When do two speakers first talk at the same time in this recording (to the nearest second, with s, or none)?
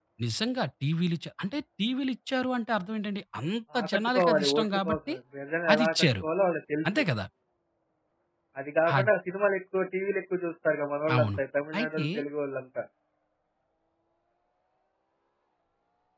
4 s